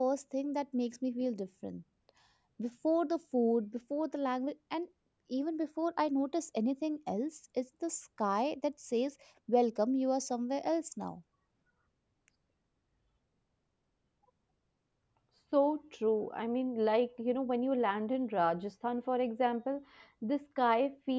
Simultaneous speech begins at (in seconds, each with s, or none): none